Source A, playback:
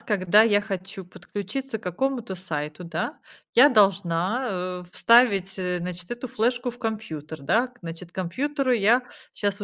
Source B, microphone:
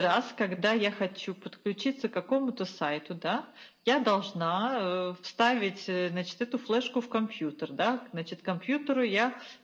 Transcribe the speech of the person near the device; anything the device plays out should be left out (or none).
none